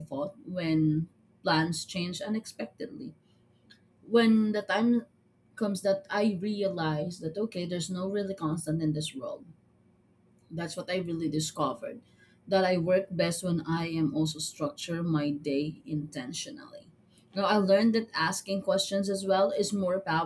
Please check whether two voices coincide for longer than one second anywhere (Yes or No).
No